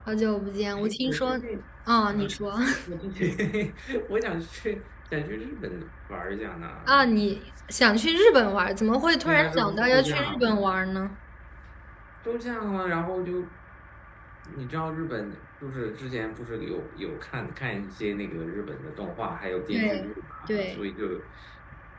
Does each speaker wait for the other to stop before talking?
No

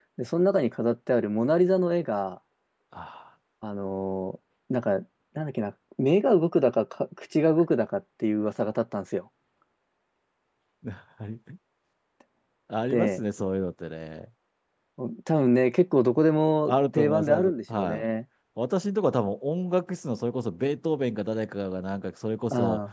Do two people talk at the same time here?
Yes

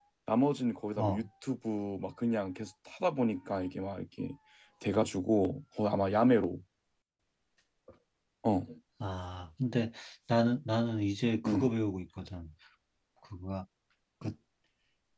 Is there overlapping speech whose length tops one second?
No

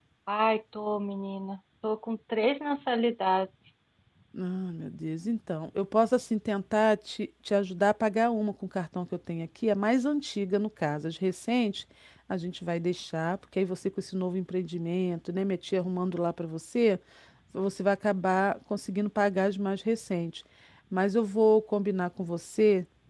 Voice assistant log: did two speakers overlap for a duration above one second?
No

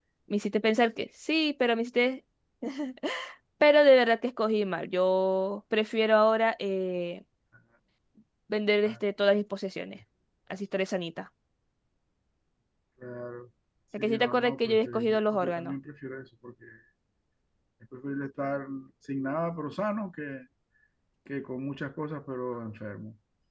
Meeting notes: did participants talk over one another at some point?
Yes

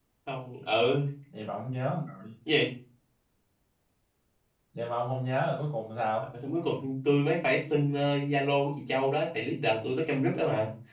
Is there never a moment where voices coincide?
Yes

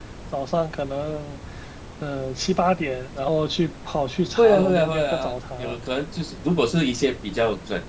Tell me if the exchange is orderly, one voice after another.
No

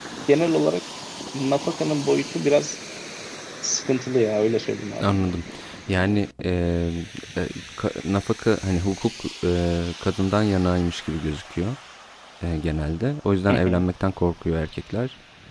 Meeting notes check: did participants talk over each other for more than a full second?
No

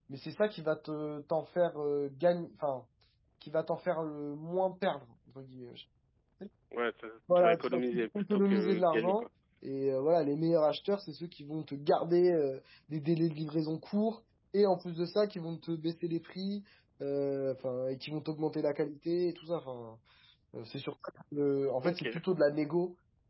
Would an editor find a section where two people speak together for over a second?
Yes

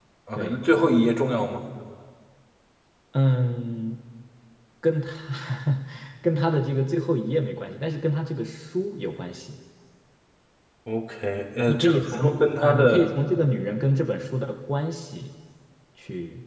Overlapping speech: Yes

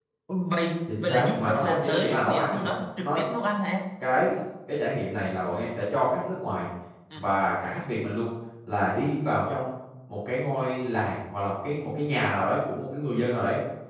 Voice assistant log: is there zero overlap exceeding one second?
No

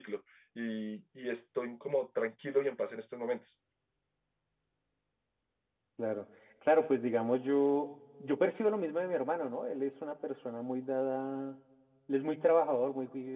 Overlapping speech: No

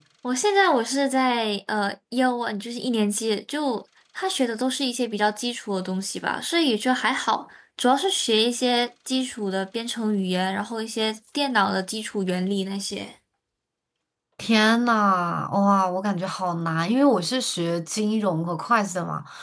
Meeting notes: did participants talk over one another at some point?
No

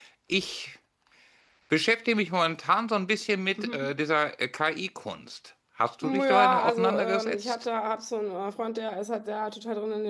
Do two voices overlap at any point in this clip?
Yes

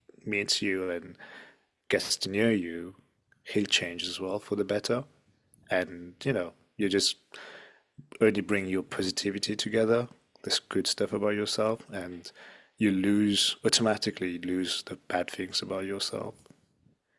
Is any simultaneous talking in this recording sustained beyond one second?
No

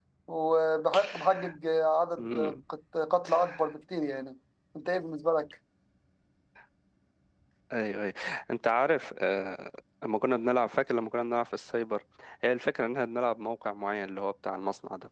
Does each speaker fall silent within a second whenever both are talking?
Yes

